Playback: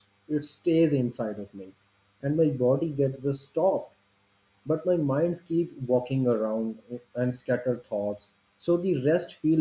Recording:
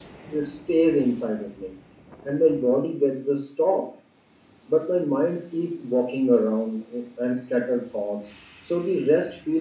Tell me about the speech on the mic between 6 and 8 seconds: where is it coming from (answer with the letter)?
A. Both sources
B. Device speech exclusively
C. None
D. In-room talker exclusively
B